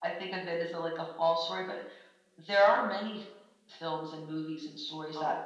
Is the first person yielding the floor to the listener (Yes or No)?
No